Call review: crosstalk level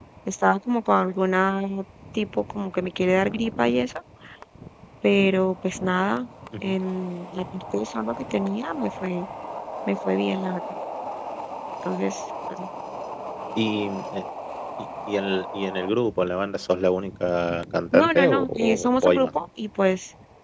present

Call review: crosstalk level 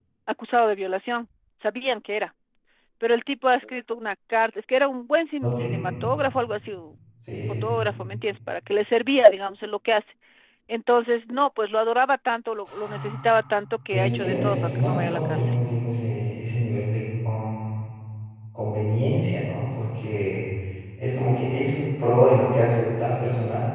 present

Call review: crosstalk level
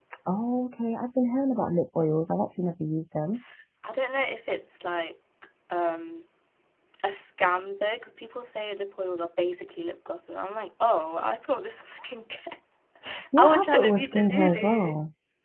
present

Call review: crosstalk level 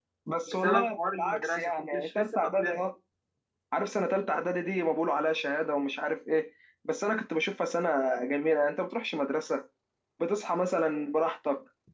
present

